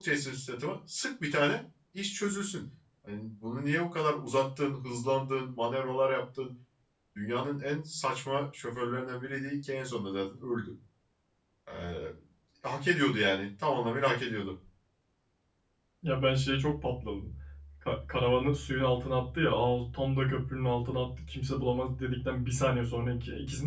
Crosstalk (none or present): none